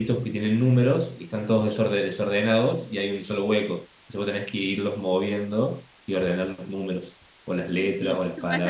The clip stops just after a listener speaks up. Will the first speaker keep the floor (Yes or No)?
No